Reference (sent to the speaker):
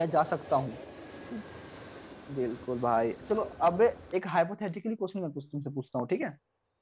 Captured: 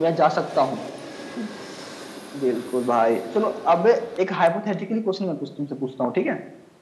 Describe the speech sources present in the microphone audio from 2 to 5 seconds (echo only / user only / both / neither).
echo only